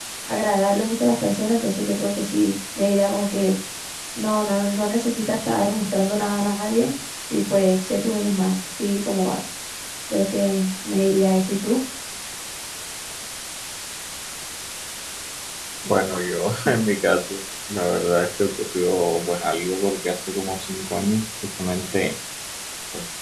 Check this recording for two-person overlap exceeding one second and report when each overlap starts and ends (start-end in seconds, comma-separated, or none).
none